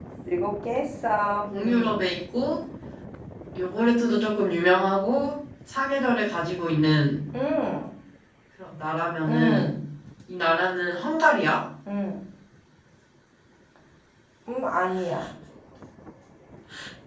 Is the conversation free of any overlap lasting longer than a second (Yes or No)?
Yes